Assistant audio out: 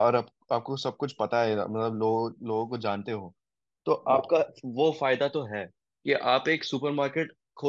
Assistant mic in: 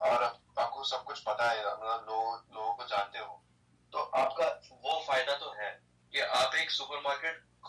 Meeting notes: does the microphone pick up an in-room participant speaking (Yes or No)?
No